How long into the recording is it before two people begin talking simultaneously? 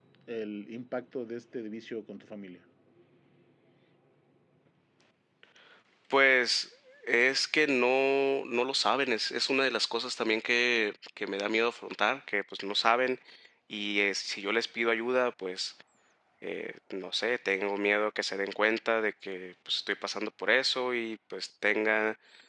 none

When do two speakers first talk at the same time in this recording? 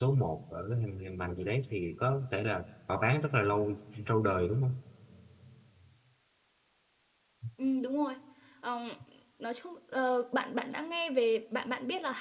none

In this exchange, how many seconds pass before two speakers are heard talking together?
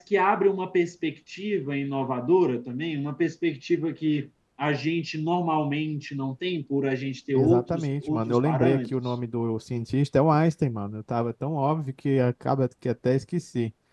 7.3 s

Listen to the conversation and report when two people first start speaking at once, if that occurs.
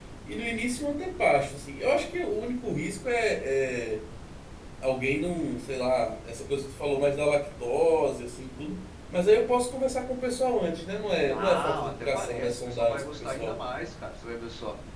11.2 s

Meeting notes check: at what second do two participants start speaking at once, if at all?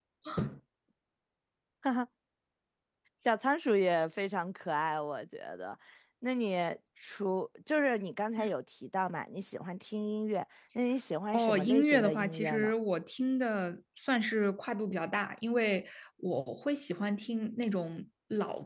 11.3 s

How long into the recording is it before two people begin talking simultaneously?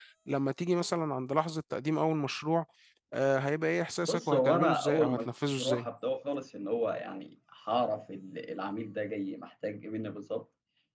4.0 s

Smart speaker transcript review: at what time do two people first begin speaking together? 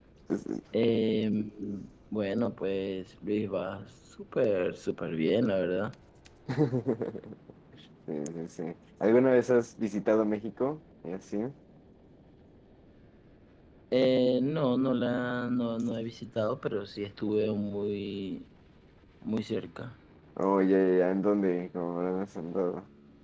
none

